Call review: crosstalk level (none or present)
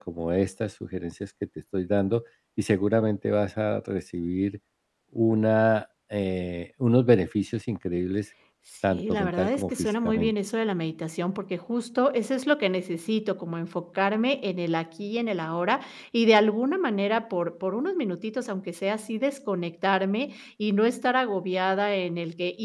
present